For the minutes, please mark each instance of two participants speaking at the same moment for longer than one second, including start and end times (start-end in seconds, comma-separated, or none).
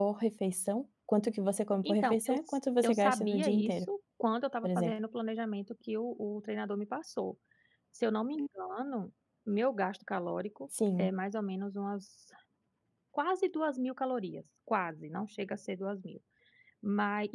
1.8-3.9